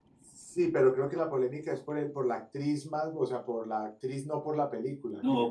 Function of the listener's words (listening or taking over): taking over